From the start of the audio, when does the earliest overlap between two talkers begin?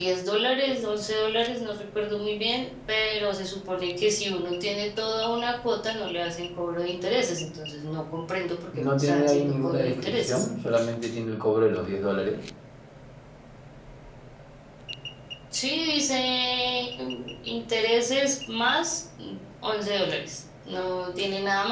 8.8 s

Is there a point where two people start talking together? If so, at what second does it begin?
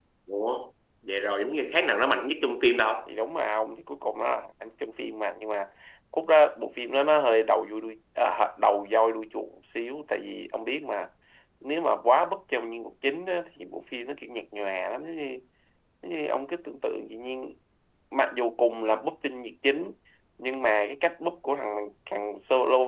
none

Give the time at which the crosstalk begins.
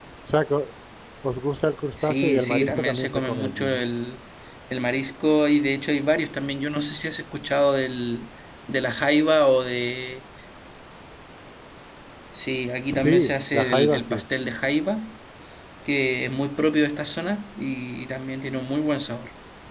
2.0 s

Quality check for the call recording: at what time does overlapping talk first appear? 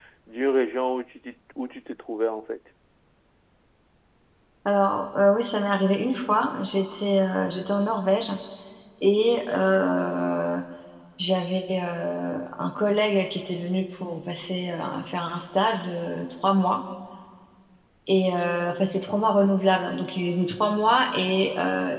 none

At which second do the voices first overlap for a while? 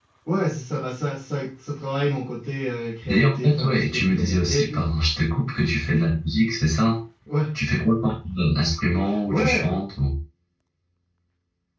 3.0 s

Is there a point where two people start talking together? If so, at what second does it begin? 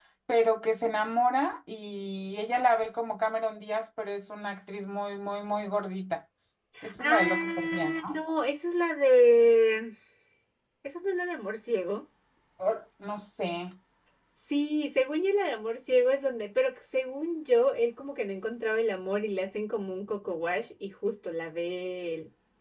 7.0 s

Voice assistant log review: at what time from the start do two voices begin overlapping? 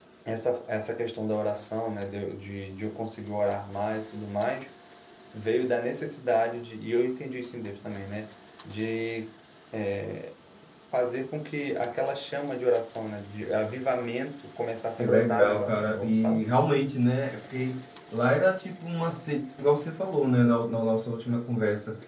15.0 s

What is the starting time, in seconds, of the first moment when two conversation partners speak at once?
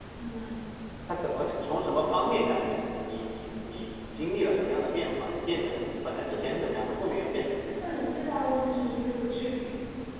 none

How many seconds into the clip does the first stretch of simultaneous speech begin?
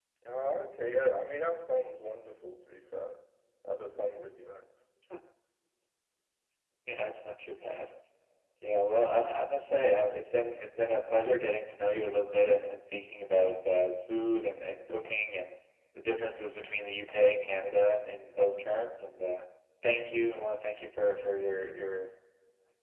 none

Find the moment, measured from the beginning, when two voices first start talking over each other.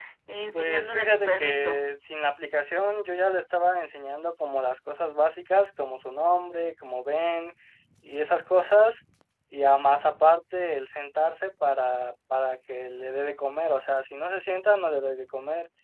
0.5 s

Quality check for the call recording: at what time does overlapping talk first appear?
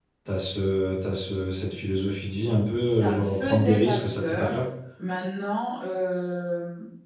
2.9 s

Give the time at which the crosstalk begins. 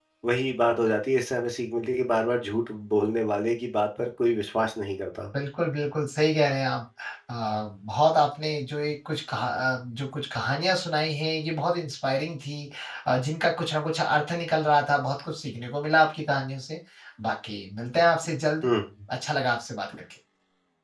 none

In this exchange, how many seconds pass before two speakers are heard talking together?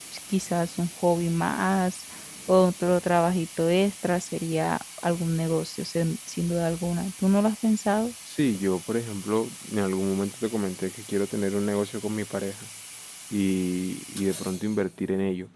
none

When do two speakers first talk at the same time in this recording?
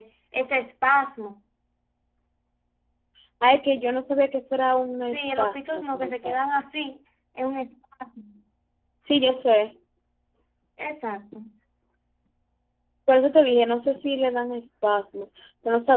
5.1 s

